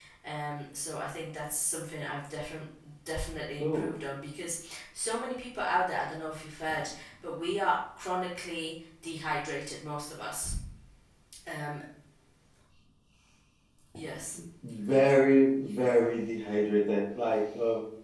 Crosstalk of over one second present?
No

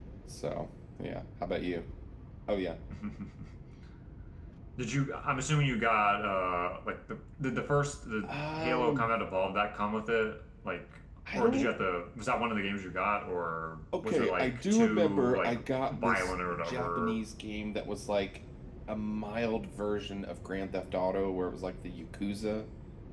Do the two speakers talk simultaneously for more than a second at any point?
Yes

